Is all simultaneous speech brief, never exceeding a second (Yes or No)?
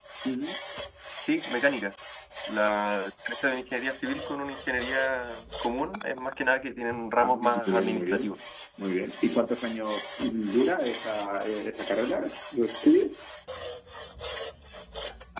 No